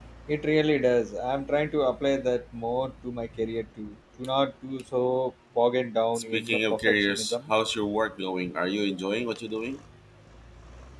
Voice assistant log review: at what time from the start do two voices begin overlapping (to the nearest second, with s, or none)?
6 s